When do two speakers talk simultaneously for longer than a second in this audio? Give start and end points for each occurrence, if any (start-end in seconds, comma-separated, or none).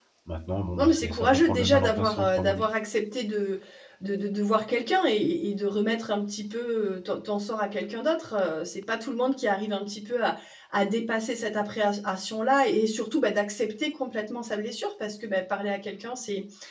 0.8-2.7